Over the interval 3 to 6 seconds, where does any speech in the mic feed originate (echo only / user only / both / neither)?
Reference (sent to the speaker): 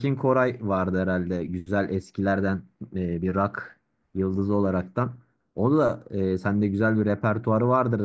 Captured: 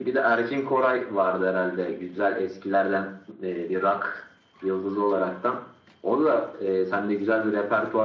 echo only